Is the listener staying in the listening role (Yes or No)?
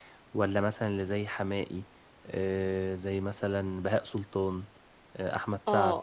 No